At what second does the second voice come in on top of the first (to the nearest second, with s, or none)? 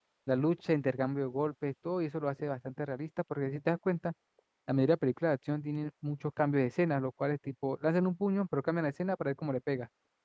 none